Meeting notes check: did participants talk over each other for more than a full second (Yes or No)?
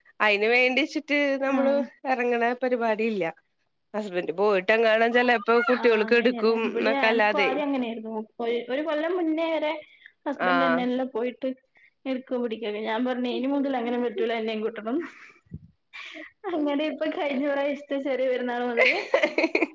Yes